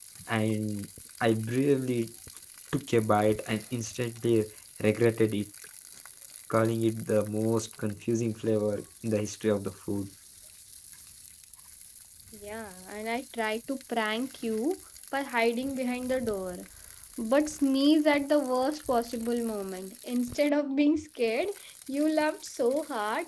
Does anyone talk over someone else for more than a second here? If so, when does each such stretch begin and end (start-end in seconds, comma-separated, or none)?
none